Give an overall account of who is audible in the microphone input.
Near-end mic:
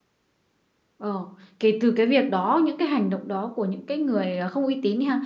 user only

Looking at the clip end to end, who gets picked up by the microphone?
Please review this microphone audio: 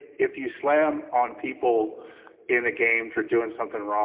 echo only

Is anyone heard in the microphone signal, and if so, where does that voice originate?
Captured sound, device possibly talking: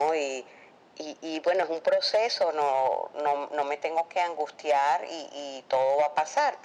echo only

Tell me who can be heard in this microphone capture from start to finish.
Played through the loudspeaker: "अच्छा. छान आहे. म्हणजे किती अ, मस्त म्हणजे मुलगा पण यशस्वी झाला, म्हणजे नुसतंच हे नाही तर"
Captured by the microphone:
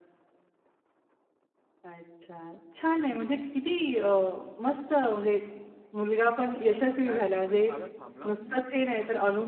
both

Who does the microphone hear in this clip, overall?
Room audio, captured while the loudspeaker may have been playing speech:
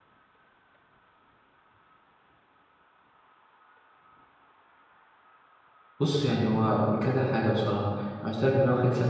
user only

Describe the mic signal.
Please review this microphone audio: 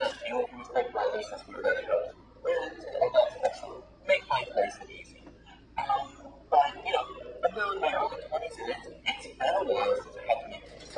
echo only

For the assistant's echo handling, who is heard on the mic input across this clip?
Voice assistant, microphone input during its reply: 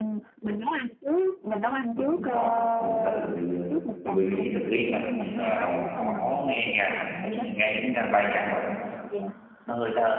both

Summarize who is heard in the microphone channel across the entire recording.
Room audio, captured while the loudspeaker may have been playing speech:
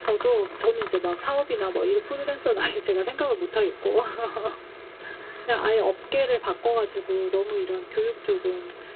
echo only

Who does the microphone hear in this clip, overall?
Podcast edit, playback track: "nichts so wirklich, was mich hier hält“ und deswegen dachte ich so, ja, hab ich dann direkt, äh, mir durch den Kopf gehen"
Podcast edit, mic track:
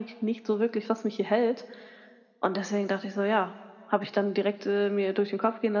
echo only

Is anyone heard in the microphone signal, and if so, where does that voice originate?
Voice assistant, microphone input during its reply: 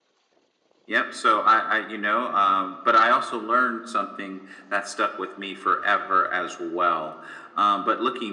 echo only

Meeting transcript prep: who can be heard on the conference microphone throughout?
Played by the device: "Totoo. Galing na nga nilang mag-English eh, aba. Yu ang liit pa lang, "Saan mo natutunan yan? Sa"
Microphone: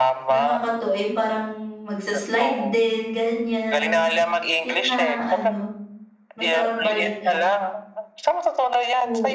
both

